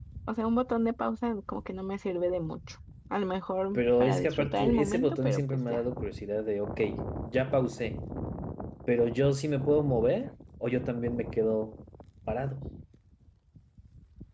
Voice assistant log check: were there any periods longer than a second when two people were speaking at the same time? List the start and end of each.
3.7-5.8

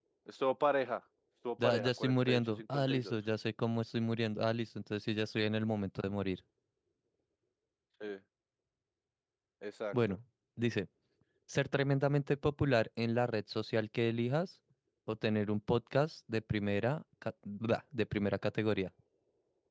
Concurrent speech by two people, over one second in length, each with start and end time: 1.6-3.1

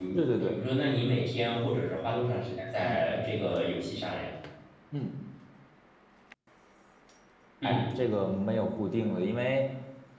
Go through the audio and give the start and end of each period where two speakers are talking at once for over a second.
none

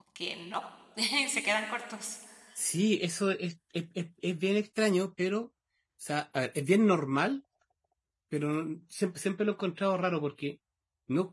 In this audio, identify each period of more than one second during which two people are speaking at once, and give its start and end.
none

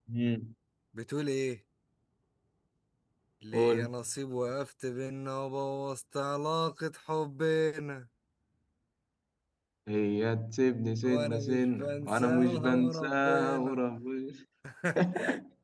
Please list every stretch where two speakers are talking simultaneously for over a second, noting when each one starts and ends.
11.1-13.8

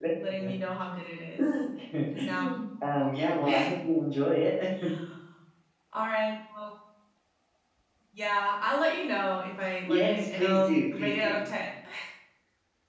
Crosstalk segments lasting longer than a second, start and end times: 9.9-11.4

